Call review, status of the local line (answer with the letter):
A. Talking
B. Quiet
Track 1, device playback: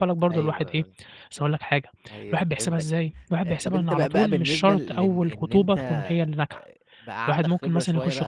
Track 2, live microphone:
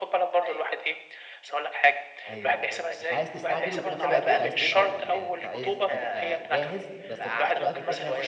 A